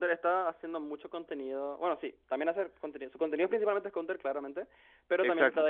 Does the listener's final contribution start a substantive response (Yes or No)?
No